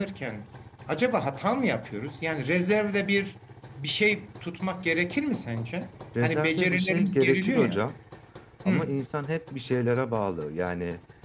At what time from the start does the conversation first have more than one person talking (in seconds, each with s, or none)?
6.2 s